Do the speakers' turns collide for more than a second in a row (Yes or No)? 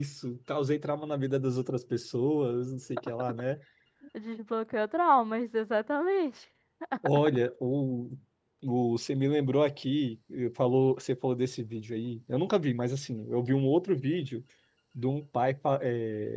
No